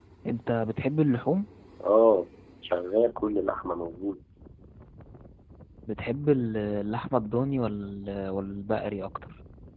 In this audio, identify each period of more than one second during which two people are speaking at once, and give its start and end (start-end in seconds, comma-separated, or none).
none